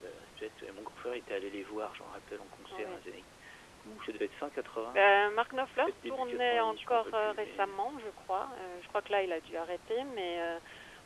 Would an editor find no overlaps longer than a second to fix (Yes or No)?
No